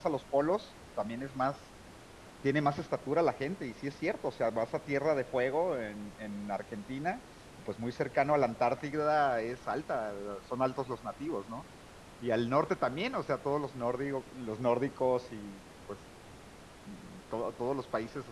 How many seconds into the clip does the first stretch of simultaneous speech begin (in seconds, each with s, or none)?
none